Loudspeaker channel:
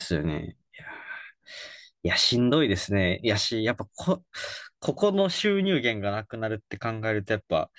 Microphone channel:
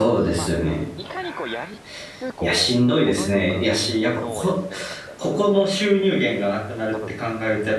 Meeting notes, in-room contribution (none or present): present